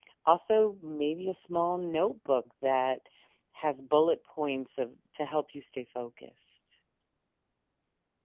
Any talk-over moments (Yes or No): No